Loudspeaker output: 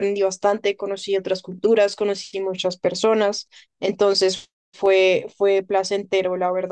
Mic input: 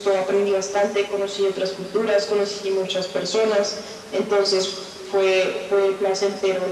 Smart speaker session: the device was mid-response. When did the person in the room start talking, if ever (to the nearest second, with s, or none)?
none